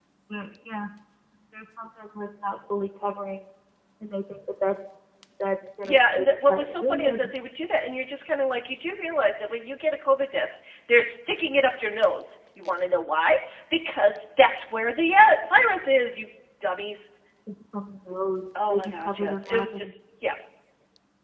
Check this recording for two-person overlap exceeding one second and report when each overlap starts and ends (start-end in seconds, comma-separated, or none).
5.8-7.2, 18.7-19.9